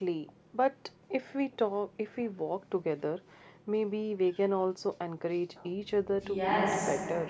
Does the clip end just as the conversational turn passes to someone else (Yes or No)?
Yes